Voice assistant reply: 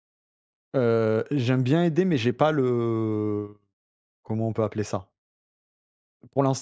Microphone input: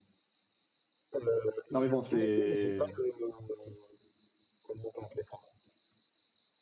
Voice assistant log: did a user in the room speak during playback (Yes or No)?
Yes